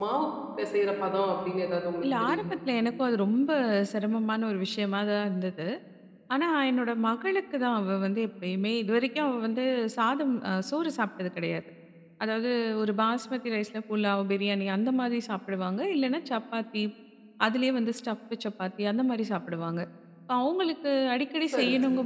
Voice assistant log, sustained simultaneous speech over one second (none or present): none